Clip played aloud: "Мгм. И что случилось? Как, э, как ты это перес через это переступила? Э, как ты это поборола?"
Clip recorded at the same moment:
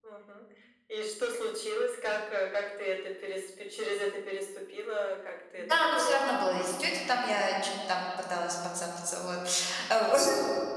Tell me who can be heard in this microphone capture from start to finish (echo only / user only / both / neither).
both